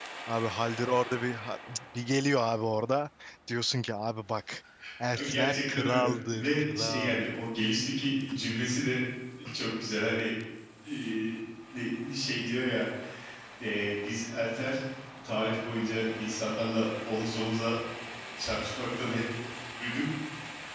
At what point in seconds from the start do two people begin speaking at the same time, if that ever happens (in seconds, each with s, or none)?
5.3 s